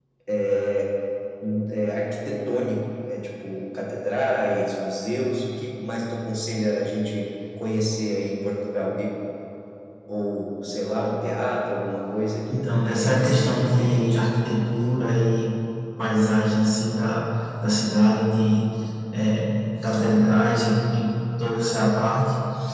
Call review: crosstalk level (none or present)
present